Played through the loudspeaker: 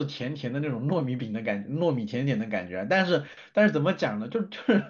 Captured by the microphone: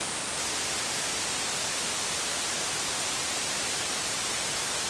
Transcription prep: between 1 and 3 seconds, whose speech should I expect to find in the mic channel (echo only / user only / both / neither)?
neither